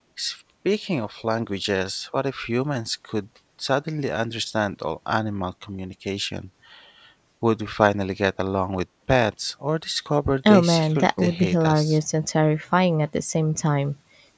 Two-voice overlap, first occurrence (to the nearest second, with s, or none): 10 s